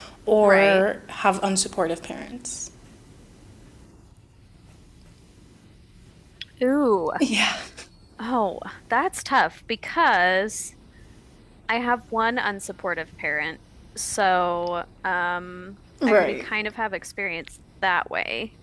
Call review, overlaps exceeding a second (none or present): none